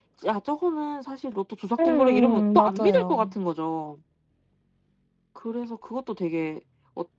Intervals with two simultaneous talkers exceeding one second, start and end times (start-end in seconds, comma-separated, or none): 1.9-3.3